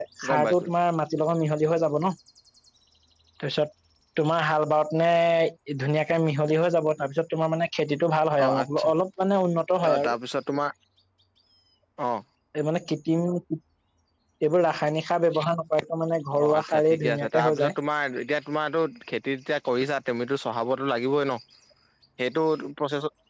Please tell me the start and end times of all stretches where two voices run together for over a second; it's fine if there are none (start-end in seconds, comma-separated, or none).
16.3-17.7